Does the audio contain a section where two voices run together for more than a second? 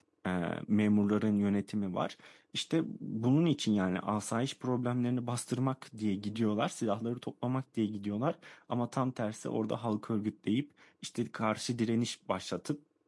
No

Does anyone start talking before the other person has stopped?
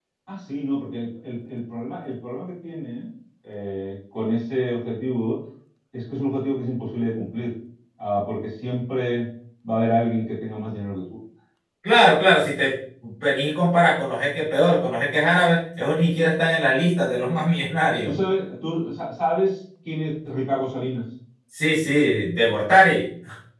No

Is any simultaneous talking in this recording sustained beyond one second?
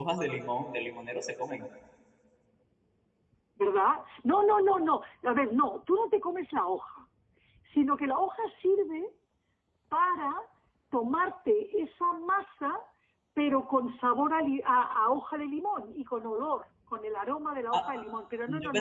No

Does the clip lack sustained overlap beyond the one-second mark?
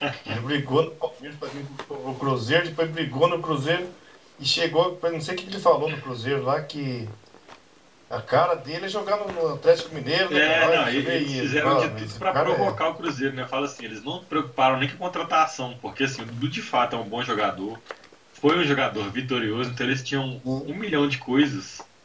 No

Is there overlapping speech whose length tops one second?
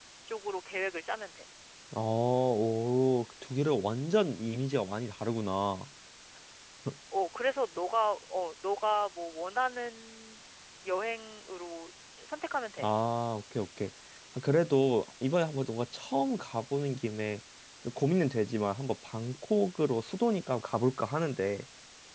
No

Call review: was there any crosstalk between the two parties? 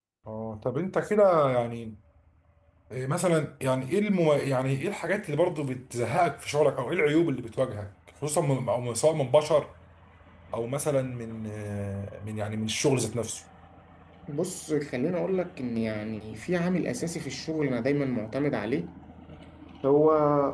No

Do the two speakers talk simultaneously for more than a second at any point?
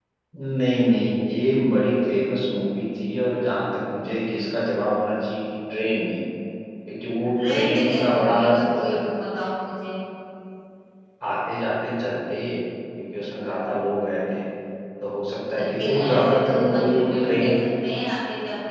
Yes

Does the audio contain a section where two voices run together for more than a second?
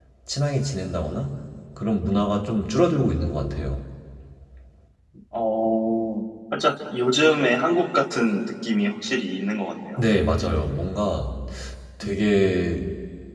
No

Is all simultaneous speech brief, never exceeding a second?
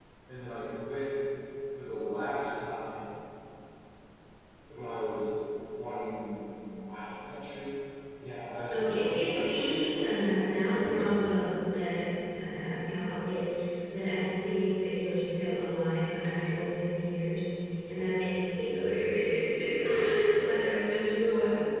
No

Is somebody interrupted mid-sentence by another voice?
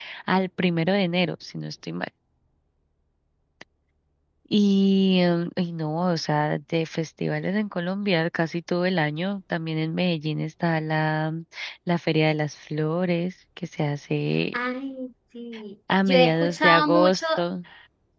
Yes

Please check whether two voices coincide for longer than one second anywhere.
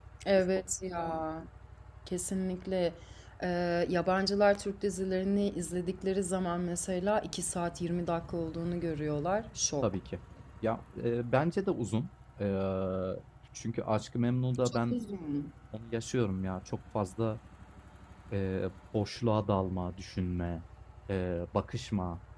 No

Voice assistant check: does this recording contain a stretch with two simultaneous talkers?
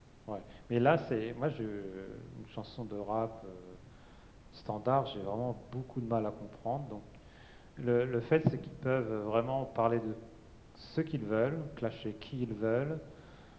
No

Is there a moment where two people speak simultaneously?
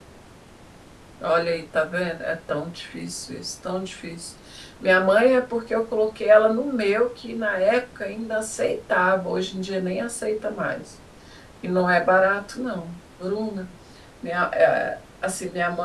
No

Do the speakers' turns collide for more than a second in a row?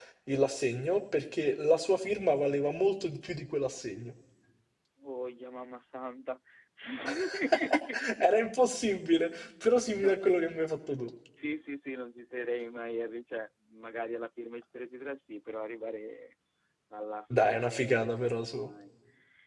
Yes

